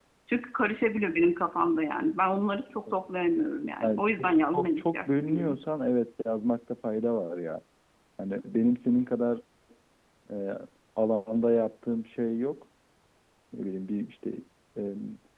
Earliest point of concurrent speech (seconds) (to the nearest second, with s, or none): 4 s